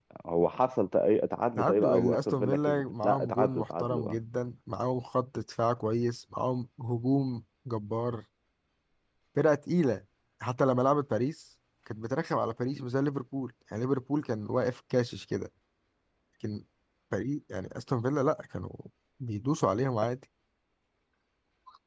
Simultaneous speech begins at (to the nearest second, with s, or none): 2 s